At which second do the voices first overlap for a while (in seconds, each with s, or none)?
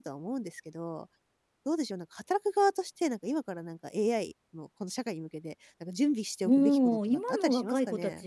6.5 s